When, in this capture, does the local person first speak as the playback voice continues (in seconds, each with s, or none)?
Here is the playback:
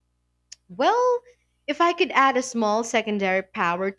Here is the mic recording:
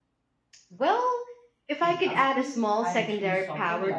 1.8 s